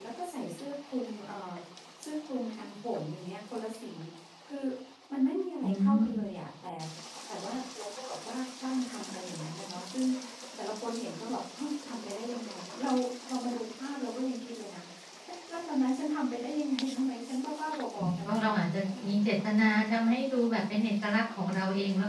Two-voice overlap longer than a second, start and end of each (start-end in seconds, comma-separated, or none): 18.0-19.3